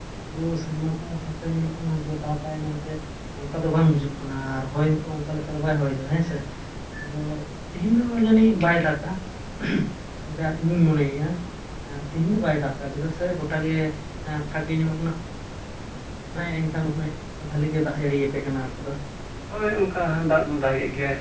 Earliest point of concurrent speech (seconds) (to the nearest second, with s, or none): none